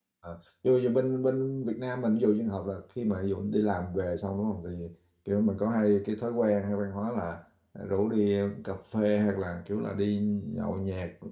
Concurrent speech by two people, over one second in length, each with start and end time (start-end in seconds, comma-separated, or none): none